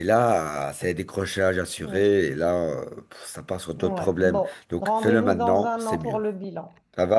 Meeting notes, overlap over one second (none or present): present